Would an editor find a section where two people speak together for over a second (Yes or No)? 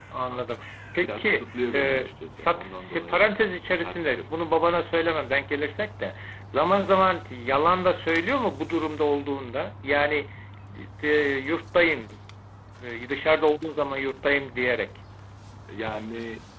Yes